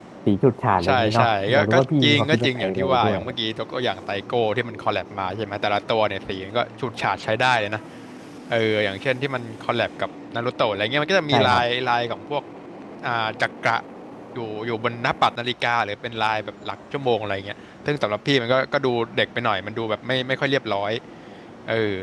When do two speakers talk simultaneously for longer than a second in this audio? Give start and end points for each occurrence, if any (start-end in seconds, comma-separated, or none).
0.8-3.2